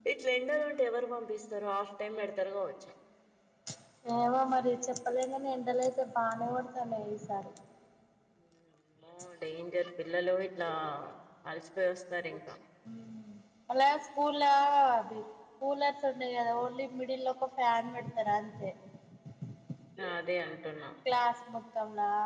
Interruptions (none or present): none